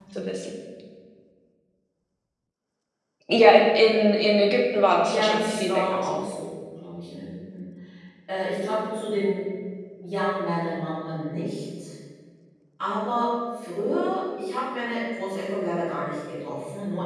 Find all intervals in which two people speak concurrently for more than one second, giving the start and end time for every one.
5.0-6.3

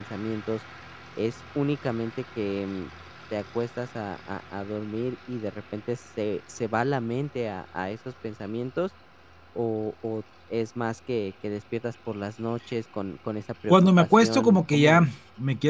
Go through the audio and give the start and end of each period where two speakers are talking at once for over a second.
13.7-15.1

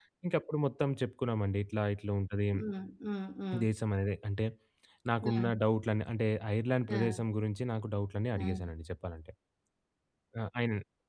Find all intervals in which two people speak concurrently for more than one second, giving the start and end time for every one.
none

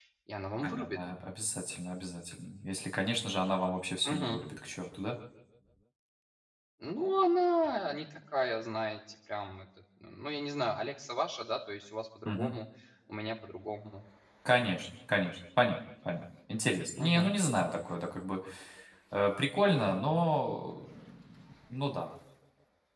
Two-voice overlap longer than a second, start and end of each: none

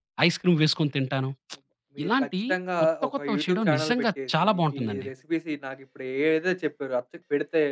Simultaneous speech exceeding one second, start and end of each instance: 2.8-5.1

